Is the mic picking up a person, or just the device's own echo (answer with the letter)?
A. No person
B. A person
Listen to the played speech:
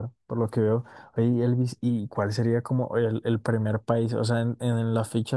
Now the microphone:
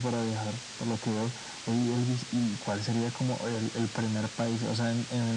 A